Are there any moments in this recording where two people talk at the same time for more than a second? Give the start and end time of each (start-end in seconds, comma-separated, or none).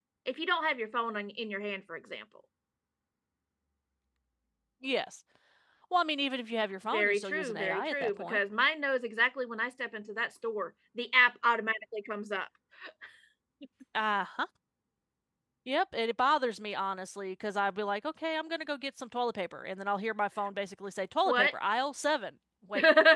6.8-8.4